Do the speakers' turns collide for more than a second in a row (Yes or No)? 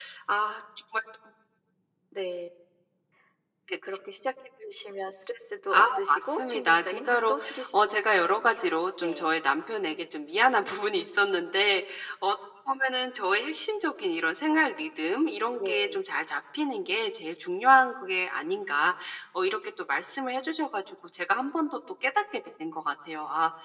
Yes